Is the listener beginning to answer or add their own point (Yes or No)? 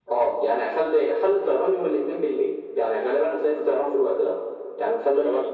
No